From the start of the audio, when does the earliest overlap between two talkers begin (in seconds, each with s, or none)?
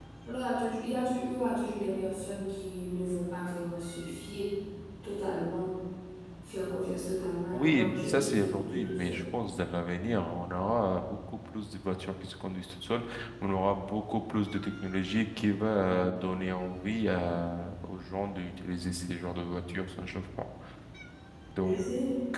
7.5 s